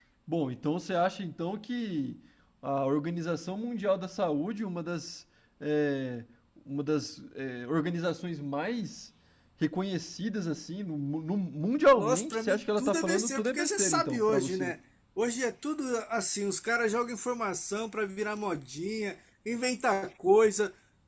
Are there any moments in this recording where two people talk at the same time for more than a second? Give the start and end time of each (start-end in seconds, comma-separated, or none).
12.0-14.7